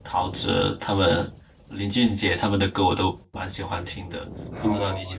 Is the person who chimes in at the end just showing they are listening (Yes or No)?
No